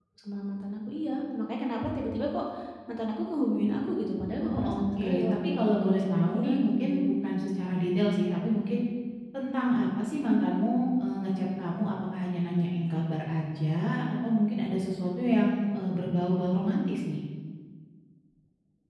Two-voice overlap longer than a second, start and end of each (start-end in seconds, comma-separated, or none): 4.4-6.8